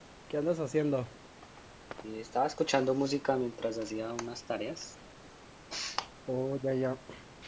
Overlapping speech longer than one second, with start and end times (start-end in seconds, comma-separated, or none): none